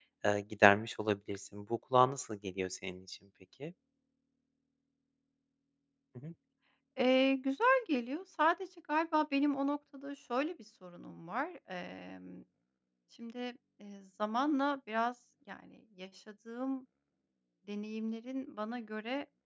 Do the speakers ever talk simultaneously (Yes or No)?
No